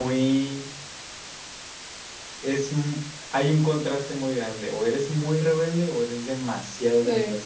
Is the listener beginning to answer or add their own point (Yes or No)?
No